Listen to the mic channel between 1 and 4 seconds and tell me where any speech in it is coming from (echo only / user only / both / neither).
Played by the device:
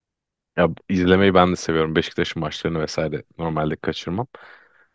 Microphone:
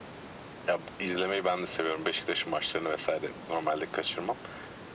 echo only